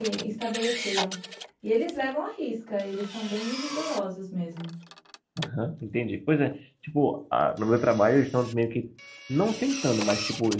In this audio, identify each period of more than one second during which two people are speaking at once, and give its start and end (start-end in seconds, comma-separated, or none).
none